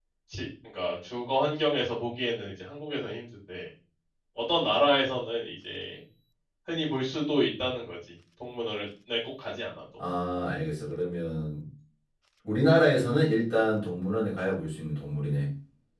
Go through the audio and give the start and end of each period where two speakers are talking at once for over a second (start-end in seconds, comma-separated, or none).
none